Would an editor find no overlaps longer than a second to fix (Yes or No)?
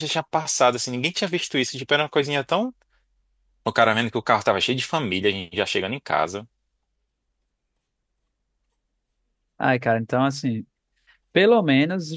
Yes